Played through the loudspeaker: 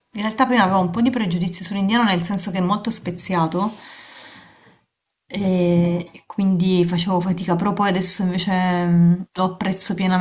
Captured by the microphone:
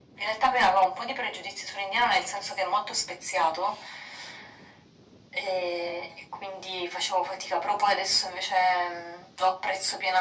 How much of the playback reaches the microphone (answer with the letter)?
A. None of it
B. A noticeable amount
B